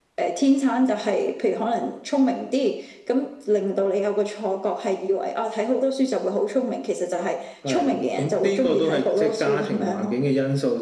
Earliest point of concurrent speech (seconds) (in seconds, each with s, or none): 7.7 s